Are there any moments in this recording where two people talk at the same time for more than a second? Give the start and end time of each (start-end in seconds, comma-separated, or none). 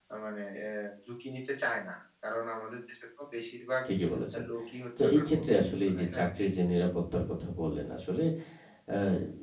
5.0-6.2